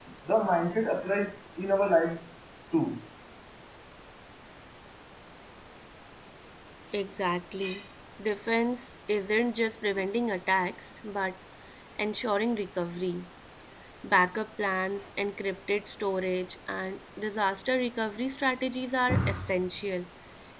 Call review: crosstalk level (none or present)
none